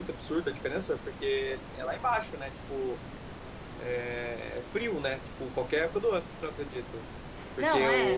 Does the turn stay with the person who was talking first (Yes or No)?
Yes